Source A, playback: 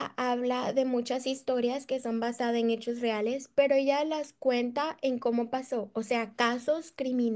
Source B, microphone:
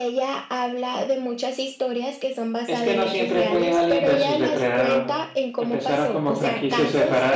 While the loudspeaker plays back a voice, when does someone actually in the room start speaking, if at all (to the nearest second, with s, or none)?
3 s